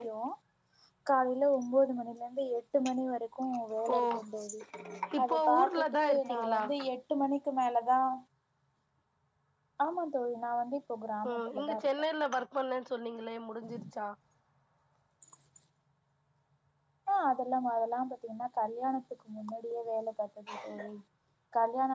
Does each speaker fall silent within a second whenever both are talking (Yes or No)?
No